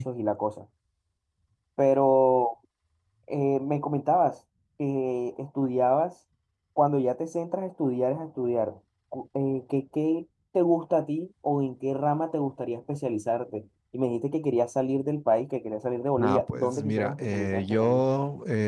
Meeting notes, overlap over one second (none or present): present